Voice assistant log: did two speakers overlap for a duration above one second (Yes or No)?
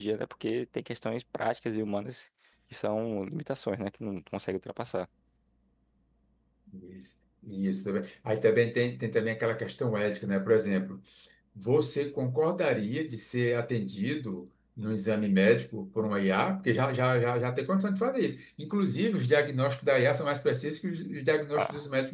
No